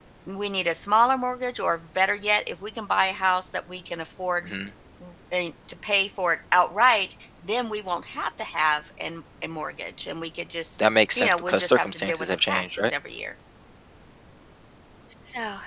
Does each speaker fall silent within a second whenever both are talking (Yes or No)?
No